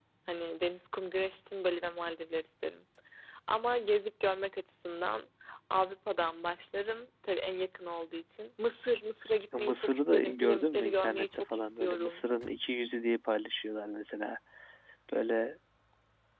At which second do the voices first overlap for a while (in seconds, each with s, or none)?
9.5 s